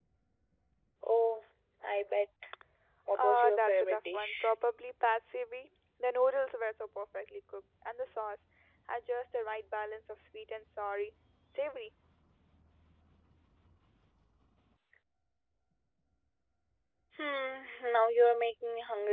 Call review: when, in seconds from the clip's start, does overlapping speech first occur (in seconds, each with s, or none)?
3.2 s